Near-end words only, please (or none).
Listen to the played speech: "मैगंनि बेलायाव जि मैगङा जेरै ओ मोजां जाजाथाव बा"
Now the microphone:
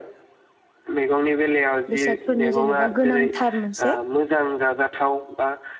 बेसादफोरनि जेनेबा गोनांथार मोनसे